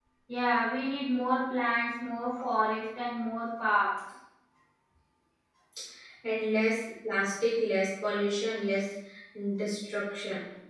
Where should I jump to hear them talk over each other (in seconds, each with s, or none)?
none